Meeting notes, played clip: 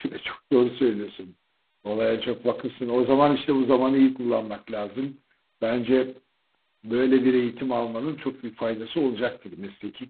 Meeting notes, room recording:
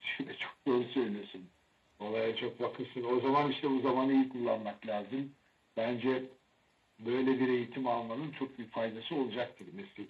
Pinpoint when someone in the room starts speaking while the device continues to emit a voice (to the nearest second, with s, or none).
none